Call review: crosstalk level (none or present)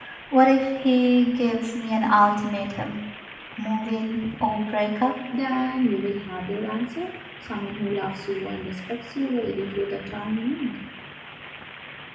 none